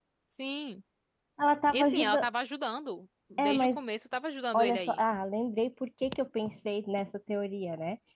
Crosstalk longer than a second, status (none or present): none